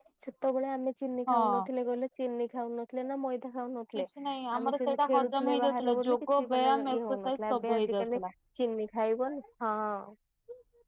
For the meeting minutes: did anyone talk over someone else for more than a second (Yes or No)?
Yes